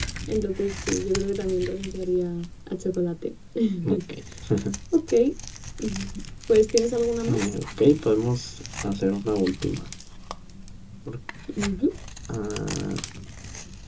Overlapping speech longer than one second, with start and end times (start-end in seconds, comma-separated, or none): none